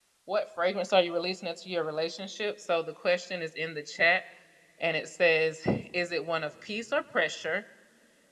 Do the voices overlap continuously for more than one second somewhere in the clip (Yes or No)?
No